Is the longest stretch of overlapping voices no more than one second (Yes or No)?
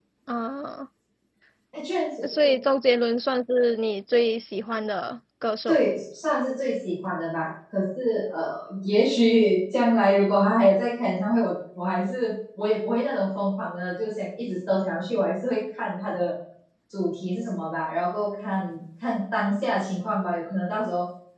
Yes